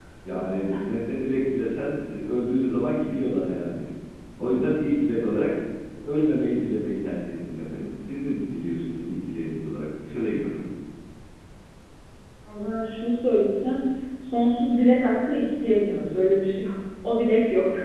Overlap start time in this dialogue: none

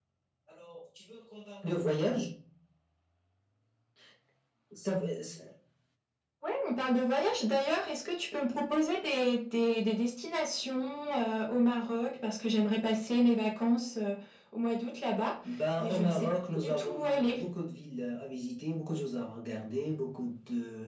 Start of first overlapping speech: 15.8 s

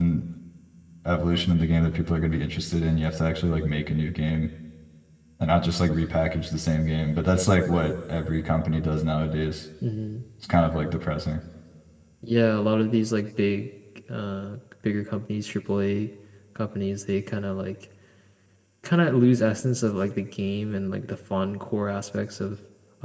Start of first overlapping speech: none

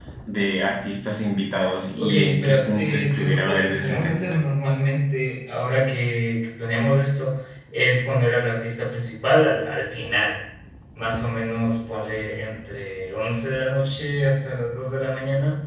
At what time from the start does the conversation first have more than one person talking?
2.0 s

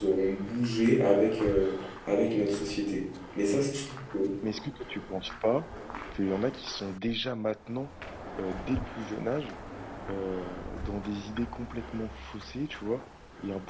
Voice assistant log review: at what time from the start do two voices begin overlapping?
none

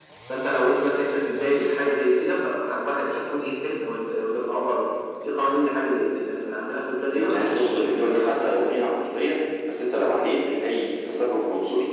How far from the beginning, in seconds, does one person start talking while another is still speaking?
7.1 s

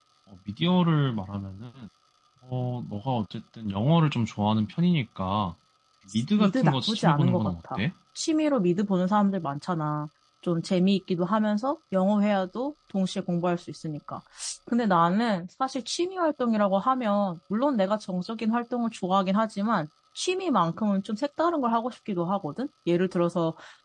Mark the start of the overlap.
6.4 s

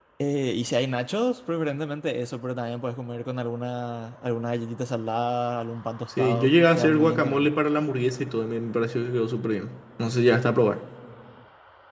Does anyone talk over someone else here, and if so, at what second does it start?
6.1 s

